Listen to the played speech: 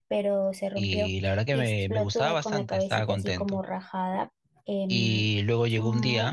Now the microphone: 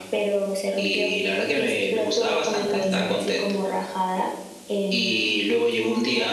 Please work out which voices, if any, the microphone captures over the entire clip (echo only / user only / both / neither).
both